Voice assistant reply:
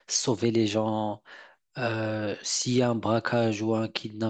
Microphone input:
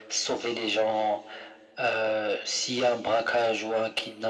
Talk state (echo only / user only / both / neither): echo only